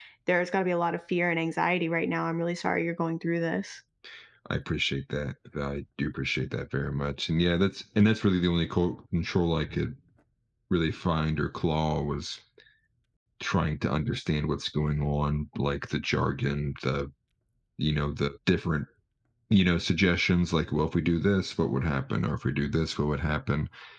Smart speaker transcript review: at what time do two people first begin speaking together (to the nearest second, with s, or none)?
none